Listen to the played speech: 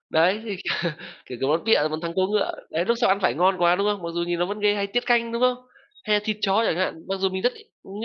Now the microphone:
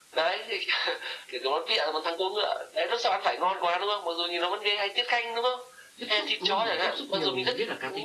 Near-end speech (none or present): present